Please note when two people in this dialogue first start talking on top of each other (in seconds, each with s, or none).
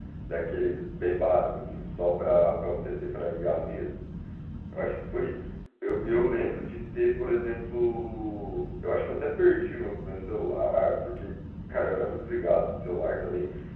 none